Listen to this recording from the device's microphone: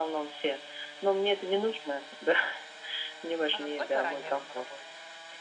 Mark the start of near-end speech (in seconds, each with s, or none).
3.5 s